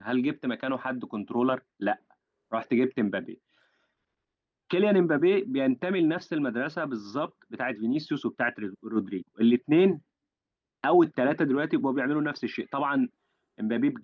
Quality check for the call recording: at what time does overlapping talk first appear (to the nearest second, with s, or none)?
none